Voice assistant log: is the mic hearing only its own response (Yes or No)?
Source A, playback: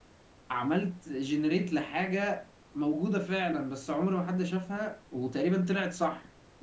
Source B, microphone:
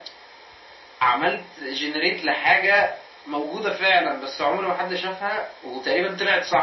Yes